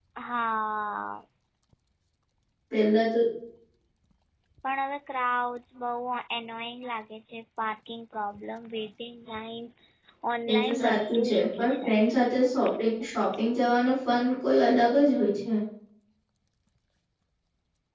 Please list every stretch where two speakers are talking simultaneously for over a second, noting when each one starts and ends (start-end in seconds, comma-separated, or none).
10.5-11.9